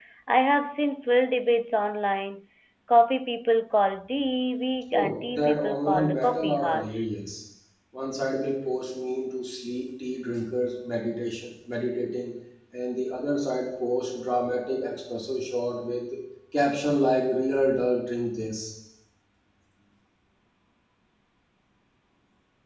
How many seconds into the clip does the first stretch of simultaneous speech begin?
4.9 s

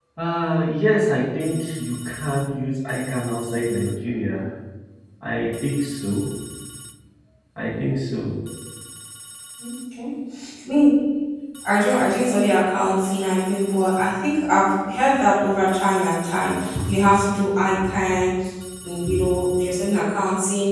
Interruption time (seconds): none

